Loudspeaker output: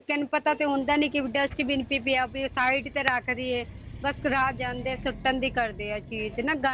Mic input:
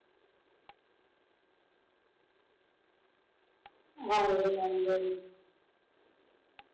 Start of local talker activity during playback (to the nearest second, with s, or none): 4 s